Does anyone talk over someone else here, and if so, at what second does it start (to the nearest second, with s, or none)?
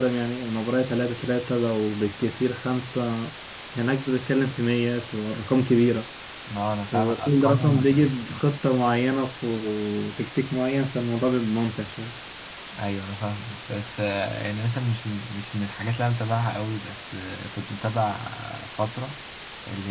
7 s